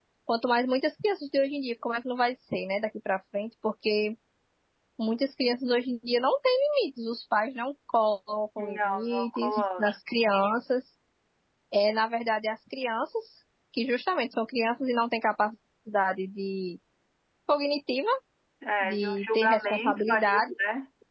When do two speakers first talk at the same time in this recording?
8.6 s

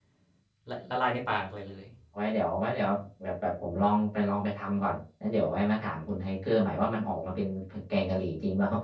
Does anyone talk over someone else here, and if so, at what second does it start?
none

